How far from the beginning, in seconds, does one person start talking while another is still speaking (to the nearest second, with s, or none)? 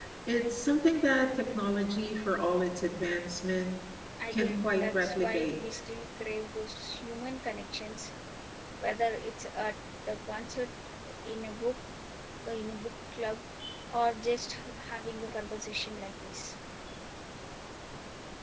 4 s